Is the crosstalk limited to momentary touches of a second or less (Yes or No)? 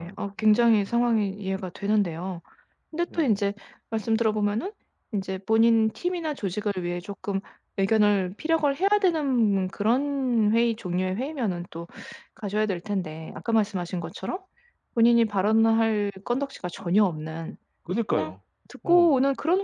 Yes